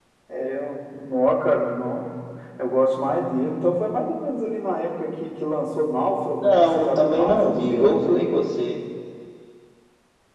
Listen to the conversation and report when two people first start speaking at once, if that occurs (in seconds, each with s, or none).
6.3 s